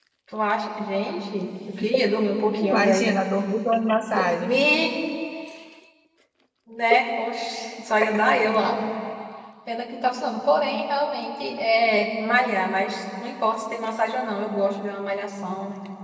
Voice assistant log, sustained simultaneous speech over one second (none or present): none